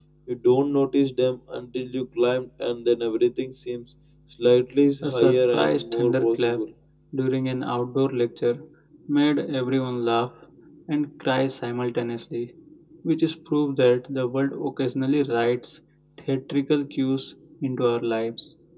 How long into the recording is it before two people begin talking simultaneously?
5 s

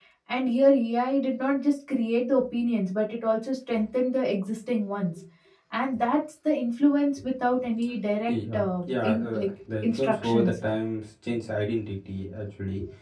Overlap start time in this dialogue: 8 s

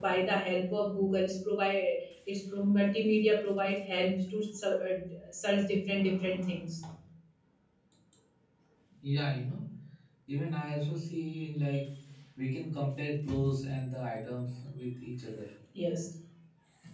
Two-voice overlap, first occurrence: none

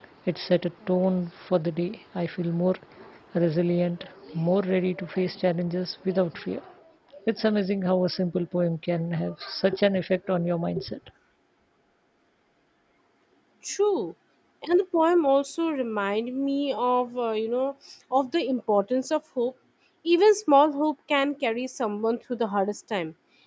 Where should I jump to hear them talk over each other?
none

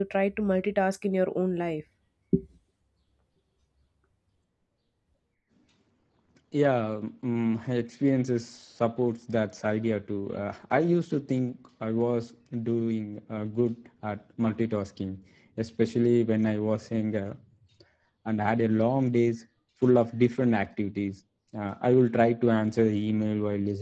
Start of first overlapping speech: none

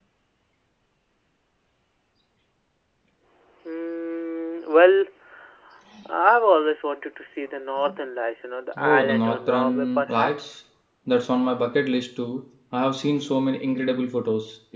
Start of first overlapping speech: 9 s

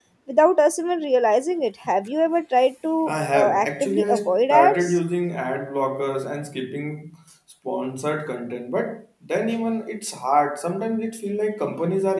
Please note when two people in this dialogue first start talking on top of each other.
3 s

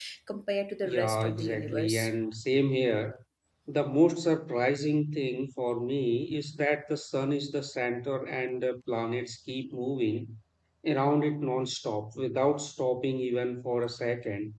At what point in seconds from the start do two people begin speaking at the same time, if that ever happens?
1 s

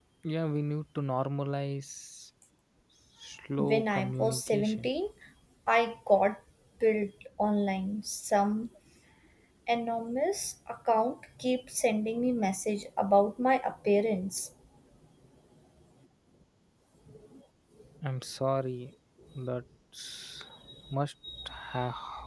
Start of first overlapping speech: 4 s

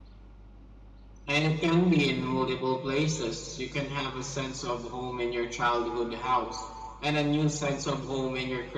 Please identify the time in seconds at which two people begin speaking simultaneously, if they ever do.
none

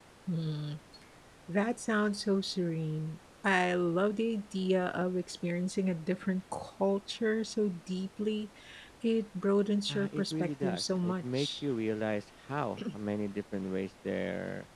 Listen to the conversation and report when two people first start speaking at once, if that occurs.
10 s

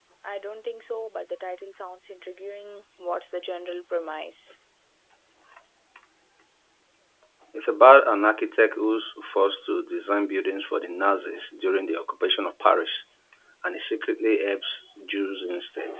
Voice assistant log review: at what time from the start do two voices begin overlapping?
none

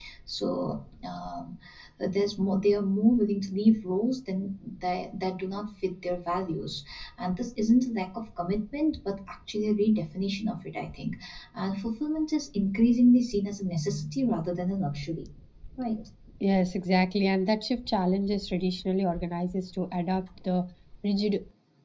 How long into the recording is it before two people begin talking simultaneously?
none

